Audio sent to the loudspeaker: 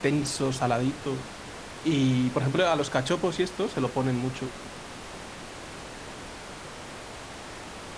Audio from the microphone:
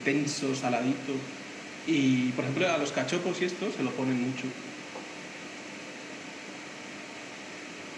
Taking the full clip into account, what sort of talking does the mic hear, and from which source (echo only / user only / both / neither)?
echo only